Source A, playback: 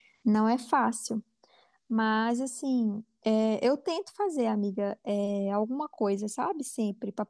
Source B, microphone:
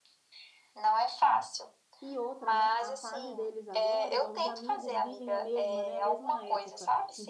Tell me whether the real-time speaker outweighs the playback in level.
No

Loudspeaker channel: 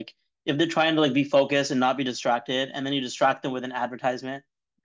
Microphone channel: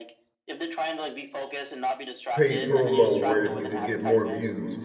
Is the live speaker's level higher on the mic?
Yes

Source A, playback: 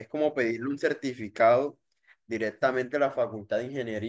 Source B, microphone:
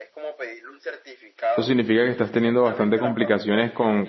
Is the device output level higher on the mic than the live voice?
No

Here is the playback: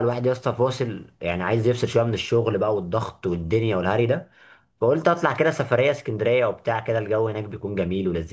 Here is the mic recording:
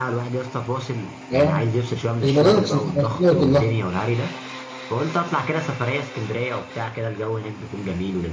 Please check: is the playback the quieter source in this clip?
Yes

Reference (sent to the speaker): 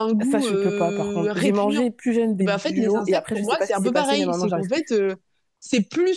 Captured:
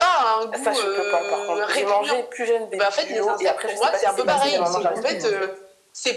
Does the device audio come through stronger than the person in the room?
Yes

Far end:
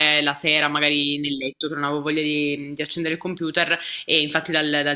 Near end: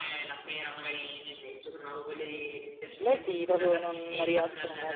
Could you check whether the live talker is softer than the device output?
No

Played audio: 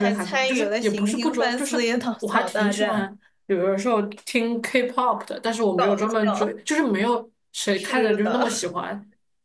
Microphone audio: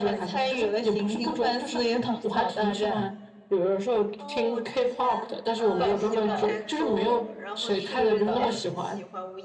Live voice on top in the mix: No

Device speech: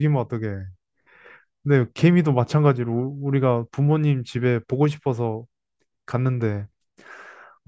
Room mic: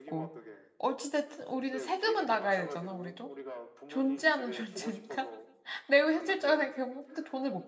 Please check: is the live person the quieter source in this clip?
No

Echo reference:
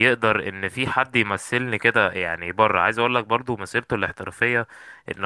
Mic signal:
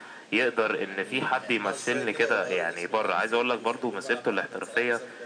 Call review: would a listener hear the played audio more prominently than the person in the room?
Yes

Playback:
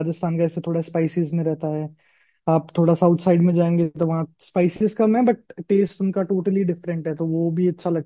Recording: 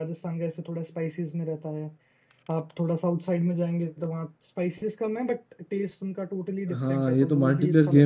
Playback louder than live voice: No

